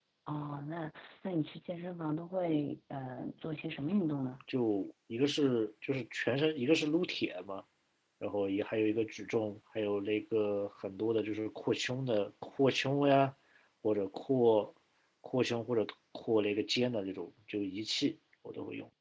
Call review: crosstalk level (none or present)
none